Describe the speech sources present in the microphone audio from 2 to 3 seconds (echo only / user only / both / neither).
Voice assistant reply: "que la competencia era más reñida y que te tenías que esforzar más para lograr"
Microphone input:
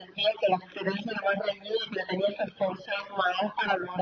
echo only